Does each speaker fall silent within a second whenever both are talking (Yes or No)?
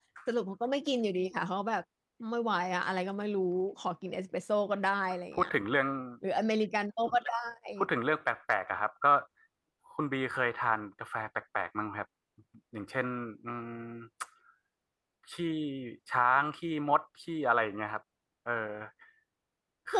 Yes